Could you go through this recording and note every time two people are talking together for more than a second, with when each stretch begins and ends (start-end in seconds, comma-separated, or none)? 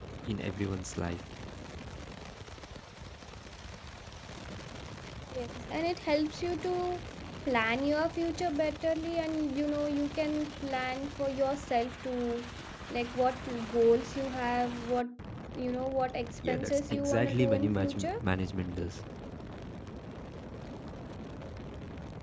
16.5-18.1